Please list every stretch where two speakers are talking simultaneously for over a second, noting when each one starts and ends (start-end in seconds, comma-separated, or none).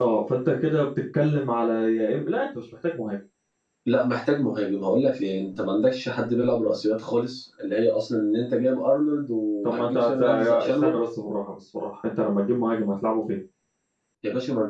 9.7-10.9